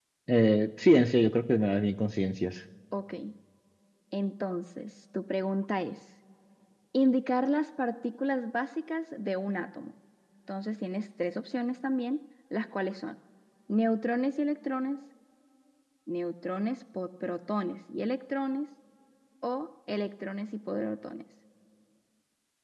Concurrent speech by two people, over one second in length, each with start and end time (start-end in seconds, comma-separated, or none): none